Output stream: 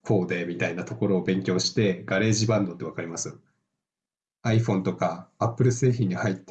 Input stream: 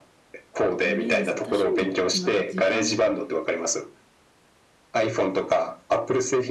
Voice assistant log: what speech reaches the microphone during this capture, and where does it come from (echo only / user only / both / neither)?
both